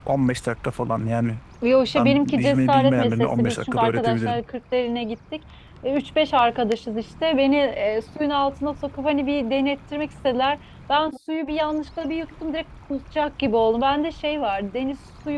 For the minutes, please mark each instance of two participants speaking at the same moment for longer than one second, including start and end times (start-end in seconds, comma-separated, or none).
2.0-4.4